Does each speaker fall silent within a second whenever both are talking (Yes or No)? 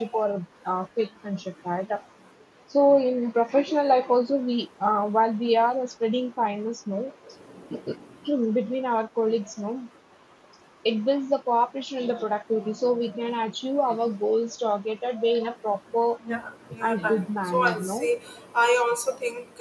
No